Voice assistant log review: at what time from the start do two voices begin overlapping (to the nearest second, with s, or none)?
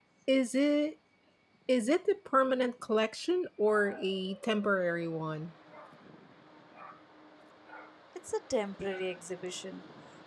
none